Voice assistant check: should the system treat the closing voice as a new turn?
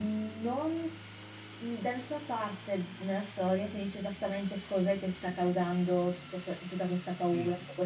No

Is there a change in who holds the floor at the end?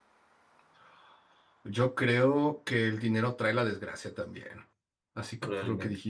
No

